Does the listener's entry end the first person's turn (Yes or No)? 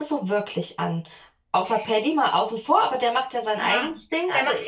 Yes